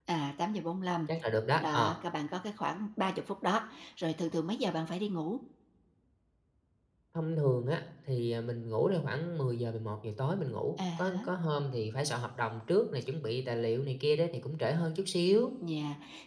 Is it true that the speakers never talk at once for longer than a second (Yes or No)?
Yes